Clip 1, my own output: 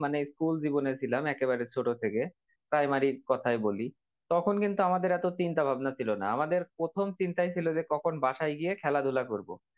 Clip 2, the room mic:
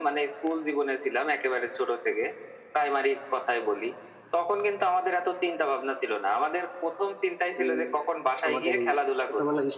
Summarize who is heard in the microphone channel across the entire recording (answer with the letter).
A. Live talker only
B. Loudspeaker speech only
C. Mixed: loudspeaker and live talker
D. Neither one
C